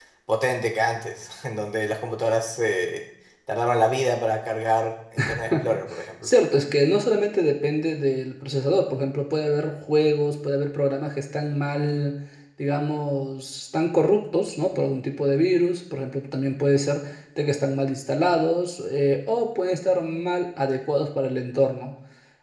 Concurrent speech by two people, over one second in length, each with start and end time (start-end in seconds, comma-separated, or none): none